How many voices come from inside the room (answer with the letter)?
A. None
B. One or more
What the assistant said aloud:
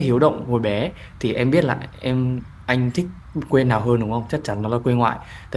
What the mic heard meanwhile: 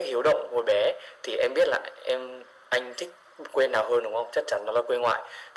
A